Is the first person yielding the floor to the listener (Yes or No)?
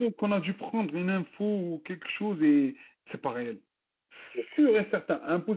No